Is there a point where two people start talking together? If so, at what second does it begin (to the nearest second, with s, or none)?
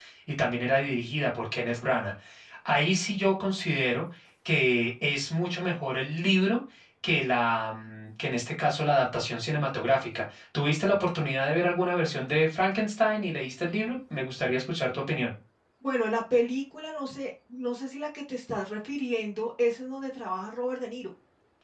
none